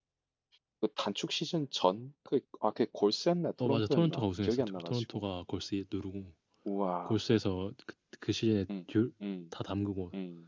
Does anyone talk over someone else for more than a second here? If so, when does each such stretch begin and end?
3.6-5.0

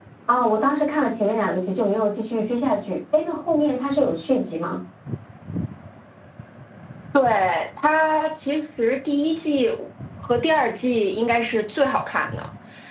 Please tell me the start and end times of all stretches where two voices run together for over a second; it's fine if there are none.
none

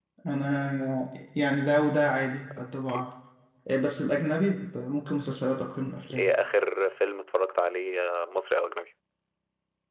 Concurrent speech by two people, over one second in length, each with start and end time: none

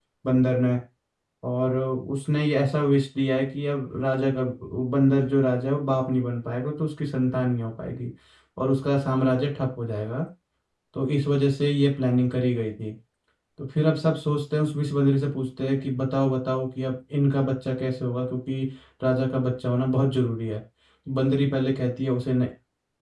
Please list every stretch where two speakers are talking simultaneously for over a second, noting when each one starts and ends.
none

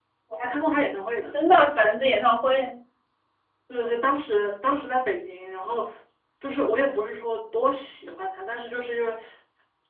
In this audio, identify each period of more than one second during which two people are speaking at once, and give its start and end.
none

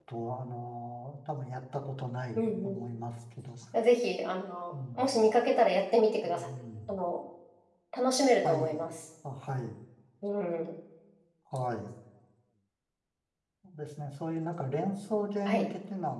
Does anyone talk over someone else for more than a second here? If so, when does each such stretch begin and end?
none

